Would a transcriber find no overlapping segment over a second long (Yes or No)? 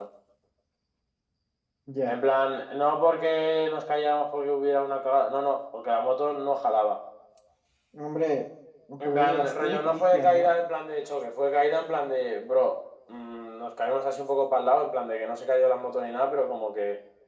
No